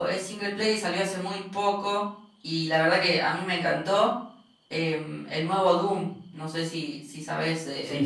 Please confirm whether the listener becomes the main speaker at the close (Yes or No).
Yes